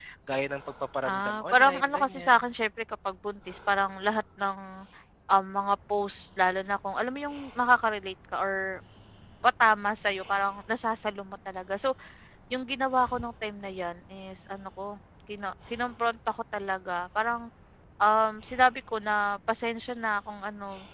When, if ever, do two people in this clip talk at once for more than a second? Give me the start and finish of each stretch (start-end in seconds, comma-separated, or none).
1.1-2.4